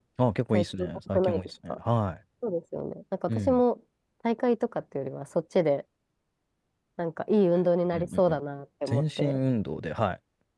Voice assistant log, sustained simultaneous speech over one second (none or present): present